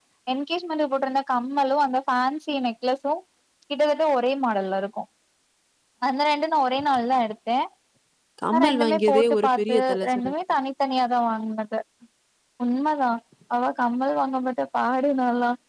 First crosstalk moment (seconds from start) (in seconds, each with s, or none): 8.5 s